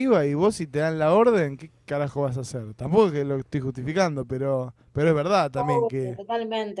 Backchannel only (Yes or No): No